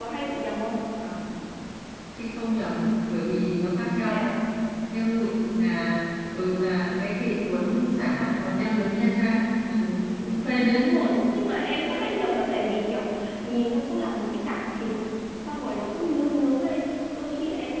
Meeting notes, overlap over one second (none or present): none